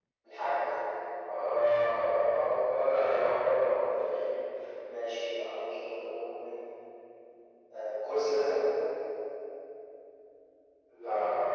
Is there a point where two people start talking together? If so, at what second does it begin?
none

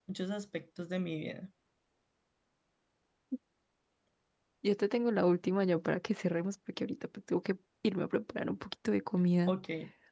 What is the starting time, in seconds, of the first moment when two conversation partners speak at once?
none

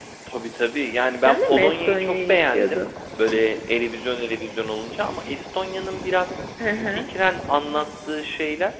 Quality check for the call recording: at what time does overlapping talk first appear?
1 s

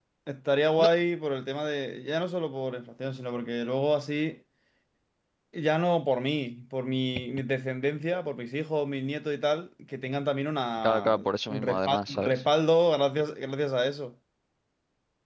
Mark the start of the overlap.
11 s

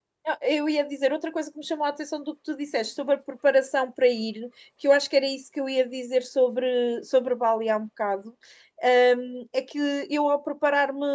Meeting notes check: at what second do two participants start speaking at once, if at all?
none

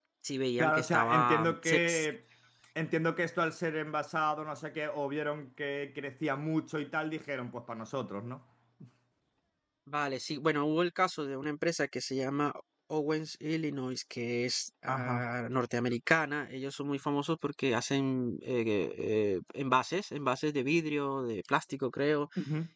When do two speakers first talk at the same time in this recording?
1 s

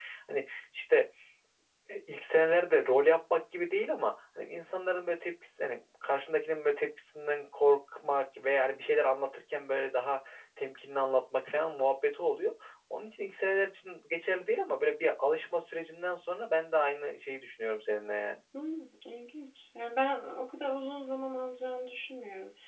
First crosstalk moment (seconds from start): none

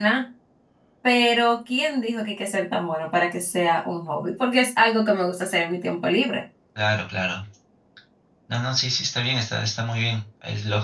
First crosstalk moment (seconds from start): none

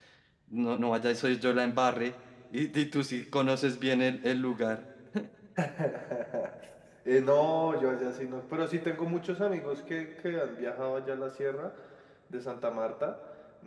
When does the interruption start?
none

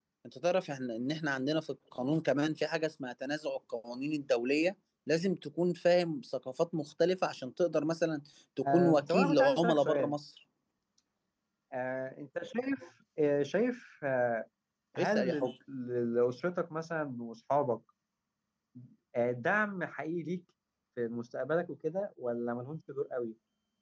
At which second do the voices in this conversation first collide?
9 s

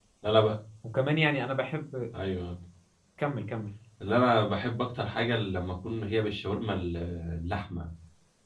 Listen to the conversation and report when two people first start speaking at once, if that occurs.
none

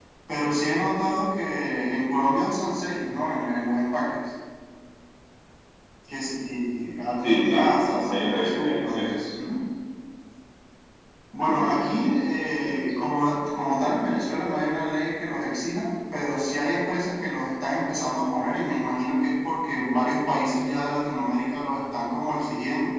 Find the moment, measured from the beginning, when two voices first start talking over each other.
7 s

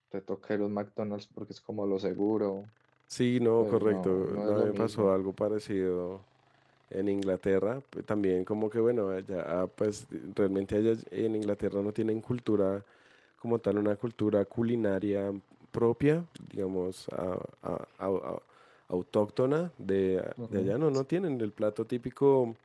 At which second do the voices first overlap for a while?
4 s

